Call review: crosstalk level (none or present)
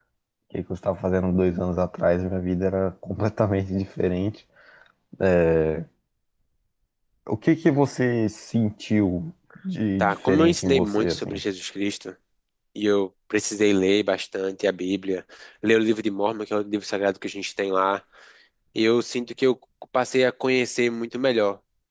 present